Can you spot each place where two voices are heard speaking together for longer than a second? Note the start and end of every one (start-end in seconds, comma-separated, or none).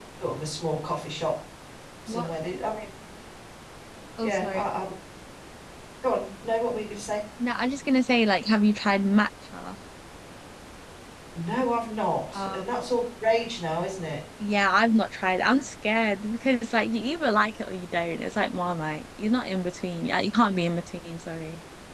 none